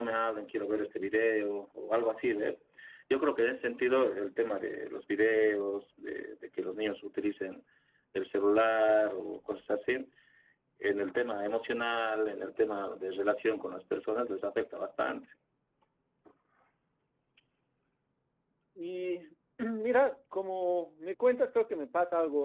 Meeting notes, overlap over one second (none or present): none